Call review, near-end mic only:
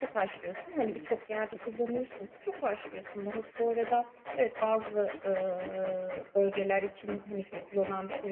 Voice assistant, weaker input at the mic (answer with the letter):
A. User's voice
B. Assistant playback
A